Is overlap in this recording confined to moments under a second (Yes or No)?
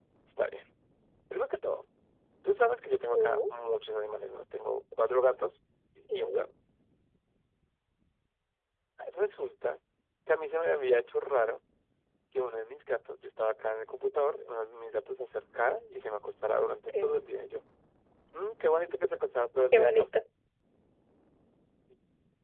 Yes